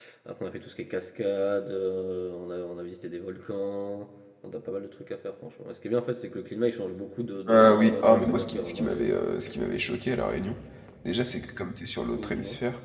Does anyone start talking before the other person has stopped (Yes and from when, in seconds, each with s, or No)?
Yes, from 7.5 s